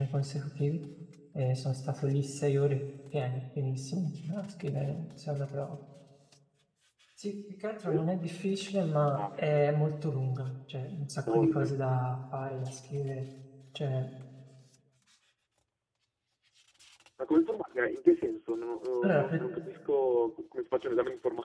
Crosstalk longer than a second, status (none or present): none